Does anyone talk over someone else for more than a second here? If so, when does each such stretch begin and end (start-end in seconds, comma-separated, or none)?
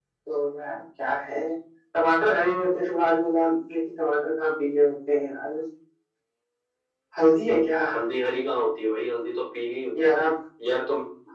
none